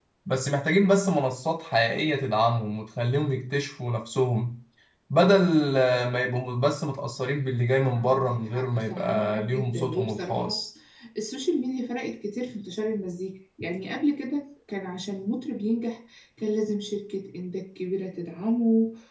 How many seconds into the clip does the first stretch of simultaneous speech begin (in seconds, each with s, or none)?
8.0 s